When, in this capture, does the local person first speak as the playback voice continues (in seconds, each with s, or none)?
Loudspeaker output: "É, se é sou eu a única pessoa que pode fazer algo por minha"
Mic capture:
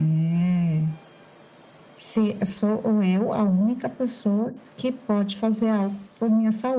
none